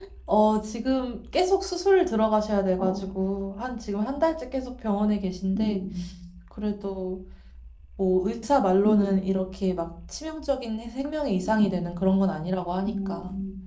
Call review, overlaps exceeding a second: none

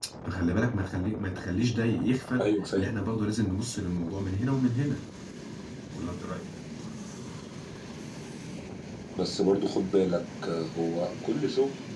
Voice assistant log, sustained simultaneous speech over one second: none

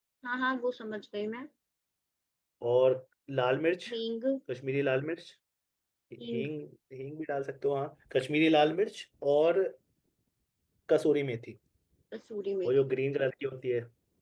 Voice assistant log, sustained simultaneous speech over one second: none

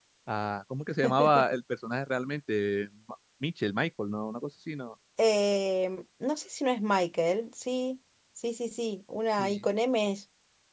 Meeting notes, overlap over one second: none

